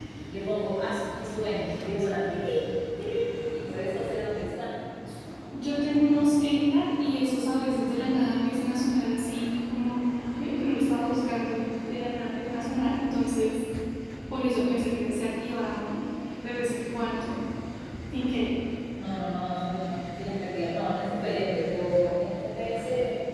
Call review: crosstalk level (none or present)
none